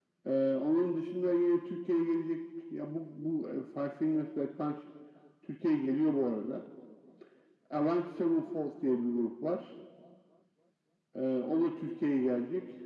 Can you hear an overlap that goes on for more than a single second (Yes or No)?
No